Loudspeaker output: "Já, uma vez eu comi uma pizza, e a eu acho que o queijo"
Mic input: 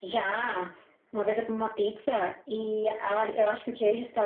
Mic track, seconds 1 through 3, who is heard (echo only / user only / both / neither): echo only